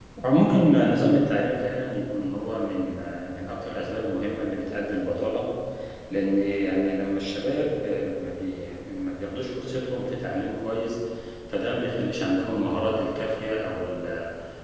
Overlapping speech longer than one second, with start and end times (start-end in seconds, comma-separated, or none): none